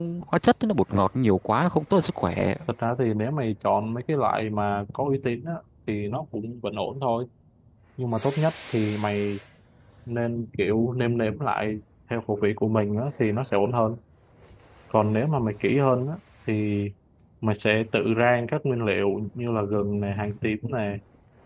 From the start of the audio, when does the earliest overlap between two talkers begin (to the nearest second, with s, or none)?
none